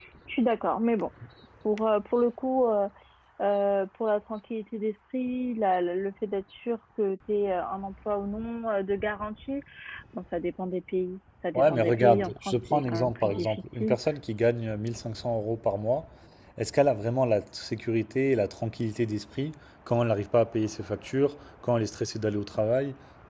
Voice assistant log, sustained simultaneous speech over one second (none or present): present